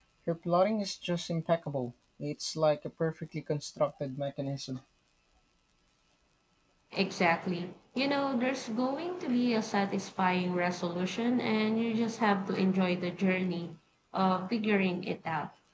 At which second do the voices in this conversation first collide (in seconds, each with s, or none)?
none